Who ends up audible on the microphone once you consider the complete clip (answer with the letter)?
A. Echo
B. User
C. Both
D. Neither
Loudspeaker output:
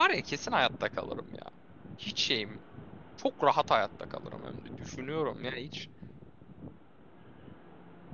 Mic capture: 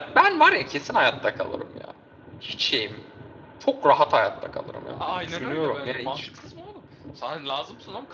C